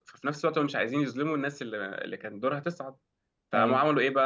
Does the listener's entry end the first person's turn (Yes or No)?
No